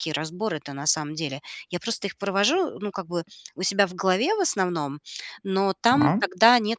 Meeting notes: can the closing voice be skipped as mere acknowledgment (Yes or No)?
Yes